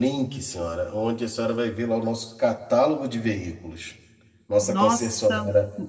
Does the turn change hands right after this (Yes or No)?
No